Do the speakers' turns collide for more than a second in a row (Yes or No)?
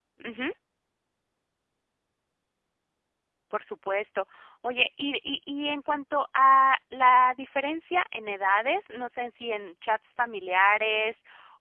No